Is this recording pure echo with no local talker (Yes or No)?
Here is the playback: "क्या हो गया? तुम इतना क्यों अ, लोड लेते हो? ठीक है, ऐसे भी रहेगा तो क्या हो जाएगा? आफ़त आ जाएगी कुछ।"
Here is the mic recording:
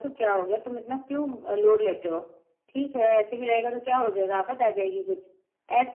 Yes